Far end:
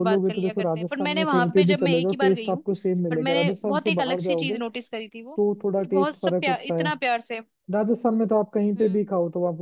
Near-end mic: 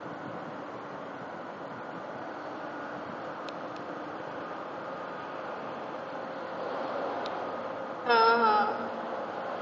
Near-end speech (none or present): present